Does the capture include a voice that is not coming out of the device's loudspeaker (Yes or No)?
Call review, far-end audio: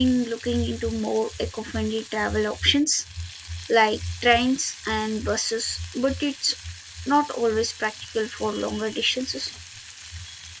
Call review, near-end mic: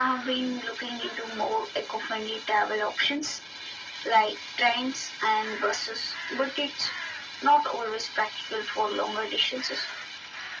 No